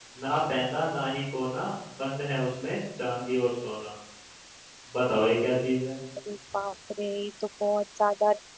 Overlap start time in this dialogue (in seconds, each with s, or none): none